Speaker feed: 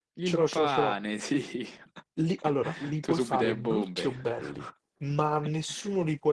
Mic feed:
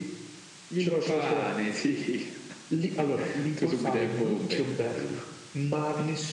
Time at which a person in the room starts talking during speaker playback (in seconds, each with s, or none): none